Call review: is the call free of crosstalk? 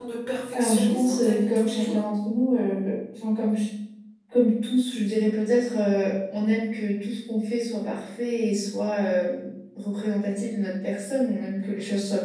No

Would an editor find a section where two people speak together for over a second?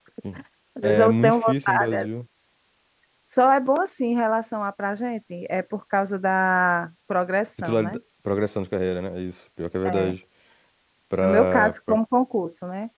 Yes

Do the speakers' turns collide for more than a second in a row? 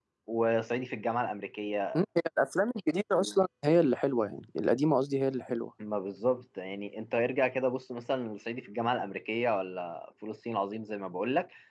No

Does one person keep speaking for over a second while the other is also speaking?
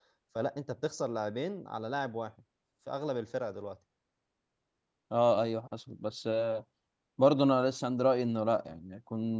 No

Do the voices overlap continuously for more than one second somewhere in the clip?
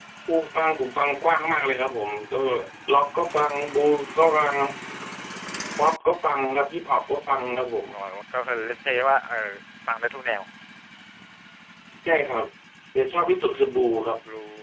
No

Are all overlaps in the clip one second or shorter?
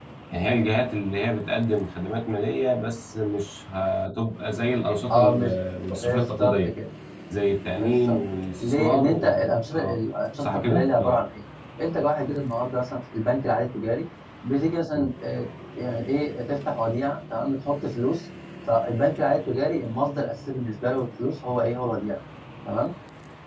No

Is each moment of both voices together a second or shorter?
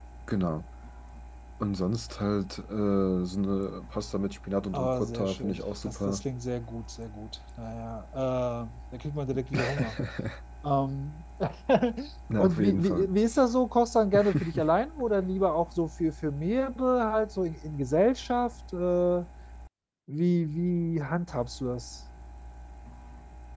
No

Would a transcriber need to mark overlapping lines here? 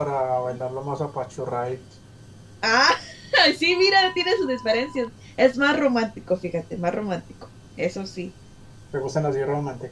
No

